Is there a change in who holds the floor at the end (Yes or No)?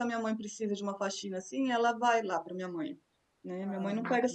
No